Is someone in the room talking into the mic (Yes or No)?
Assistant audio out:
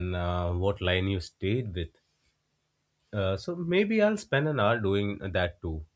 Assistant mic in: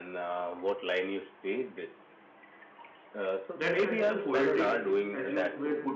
Yes